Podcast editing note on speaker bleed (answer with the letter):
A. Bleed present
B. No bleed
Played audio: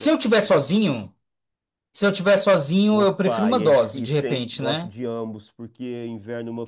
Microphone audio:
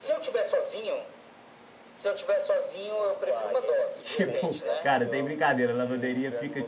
A